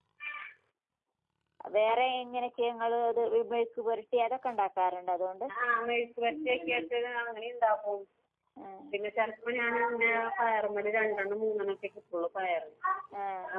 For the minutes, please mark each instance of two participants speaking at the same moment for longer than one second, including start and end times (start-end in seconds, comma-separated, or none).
none